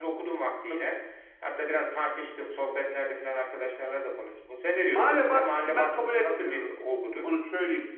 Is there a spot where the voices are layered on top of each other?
Yes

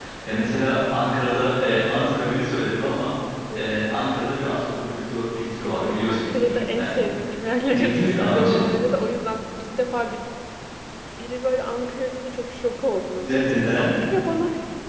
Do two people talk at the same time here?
Yes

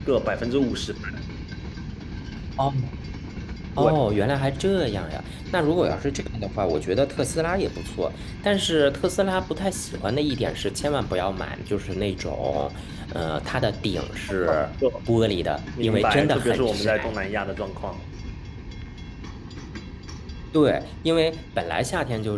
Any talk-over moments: Yes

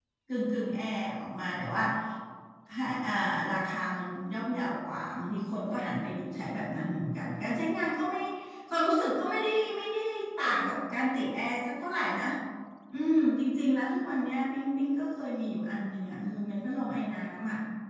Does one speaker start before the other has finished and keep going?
No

